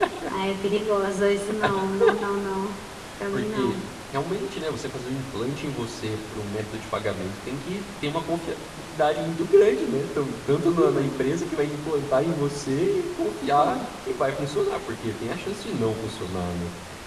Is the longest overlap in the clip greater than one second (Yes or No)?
No